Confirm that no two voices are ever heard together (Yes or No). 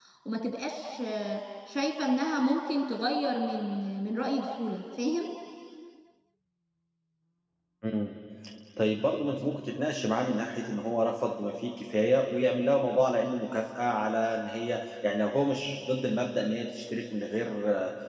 Yes